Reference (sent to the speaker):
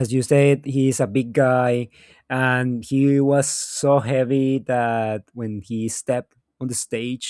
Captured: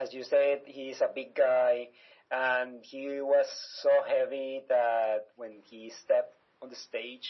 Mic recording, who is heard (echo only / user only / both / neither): echo only